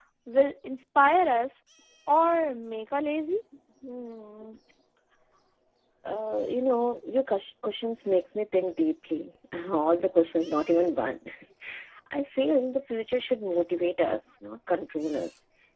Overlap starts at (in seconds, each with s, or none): none